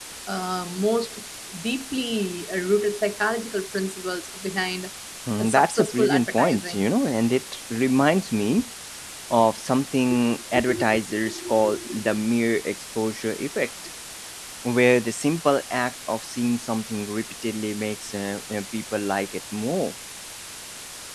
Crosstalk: present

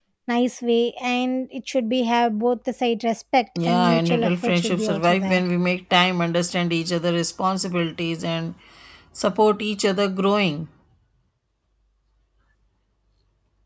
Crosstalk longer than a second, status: present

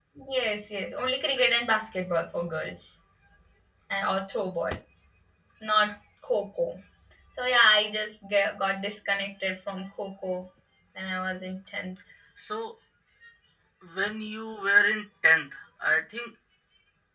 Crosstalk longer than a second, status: none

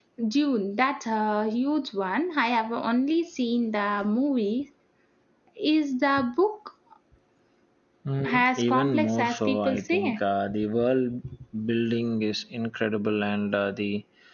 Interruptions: present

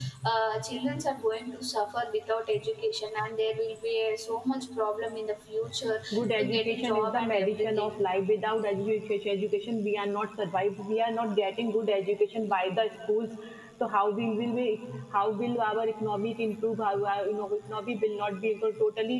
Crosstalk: present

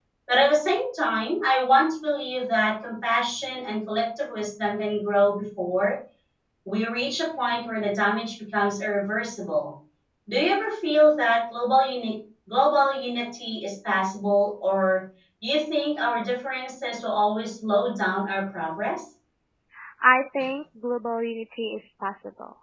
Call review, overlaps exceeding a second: none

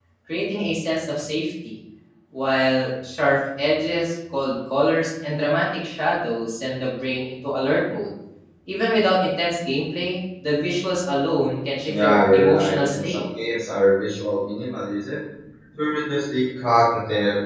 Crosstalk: present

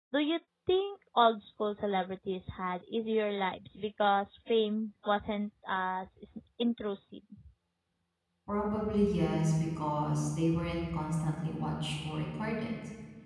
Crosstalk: none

